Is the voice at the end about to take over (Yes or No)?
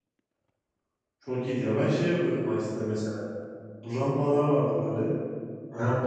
No